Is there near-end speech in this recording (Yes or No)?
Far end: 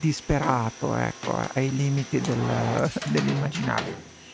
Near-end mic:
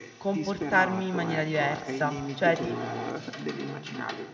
Yes